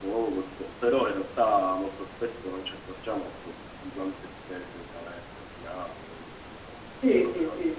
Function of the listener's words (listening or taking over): taking over